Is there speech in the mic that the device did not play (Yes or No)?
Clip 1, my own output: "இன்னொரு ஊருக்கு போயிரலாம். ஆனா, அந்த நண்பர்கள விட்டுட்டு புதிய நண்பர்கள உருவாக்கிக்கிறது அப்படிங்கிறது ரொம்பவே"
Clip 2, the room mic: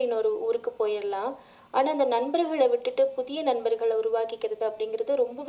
No